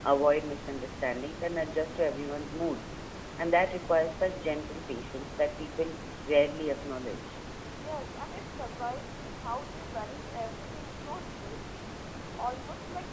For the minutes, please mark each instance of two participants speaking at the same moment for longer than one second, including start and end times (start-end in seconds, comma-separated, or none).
none